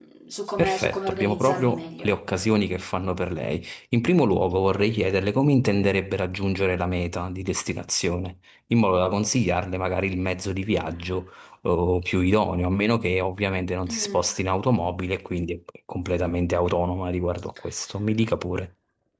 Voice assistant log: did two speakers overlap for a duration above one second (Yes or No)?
Yes